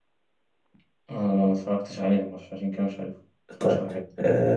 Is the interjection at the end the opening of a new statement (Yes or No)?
Yes